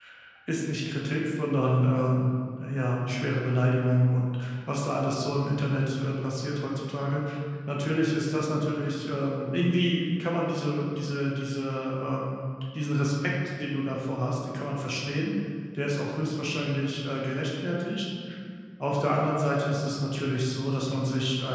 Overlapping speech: No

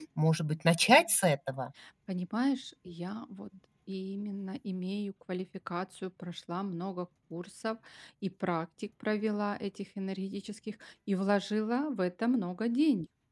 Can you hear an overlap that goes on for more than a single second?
No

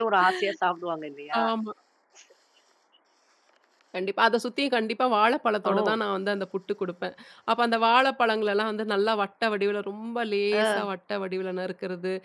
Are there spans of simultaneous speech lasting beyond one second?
No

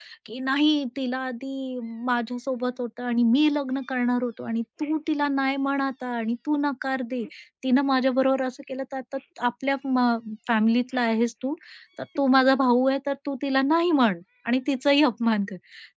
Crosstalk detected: No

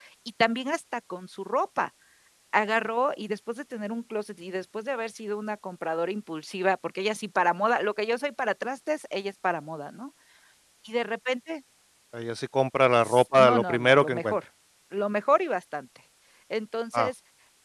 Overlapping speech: Yes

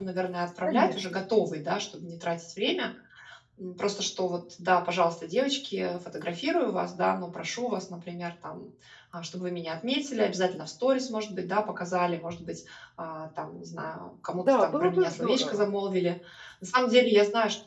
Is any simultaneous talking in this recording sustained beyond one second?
Yes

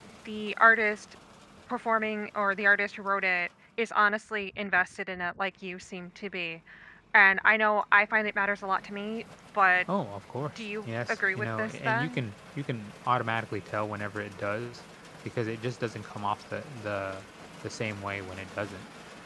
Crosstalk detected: Yes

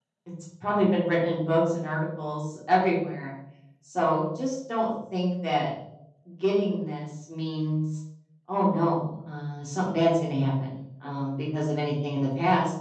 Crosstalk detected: No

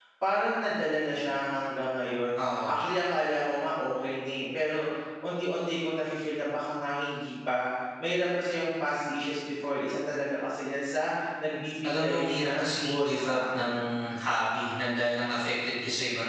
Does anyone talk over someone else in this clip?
Yes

